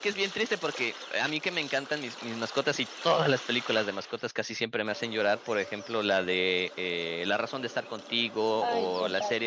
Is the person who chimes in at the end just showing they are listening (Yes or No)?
Yes